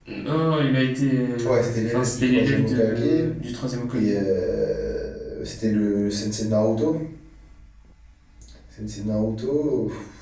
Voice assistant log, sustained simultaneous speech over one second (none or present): present